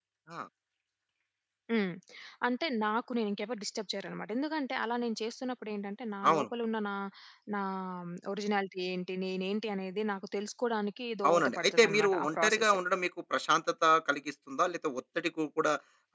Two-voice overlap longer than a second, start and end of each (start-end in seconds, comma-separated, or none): 11.3-12.8